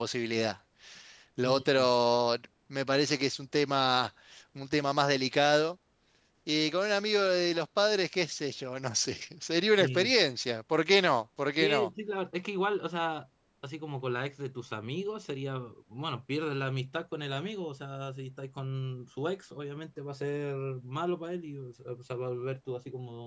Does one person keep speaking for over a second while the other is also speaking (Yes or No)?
No